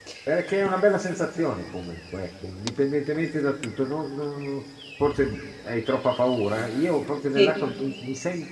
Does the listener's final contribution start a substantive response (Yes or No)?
No